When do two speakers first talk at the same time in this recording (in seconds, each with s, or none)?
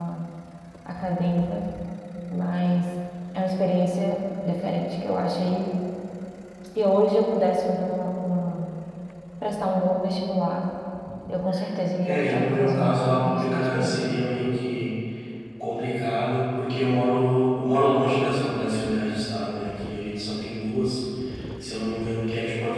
12.0 s